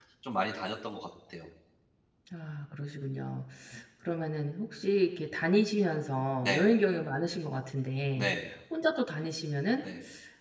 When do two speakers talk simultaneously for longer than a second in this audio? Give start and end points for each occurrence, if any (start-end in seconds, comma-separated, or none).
none